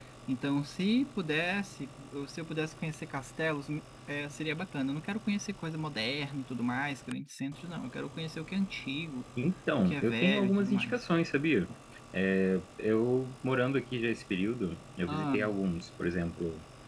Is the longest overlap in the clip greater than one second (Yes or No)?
Yes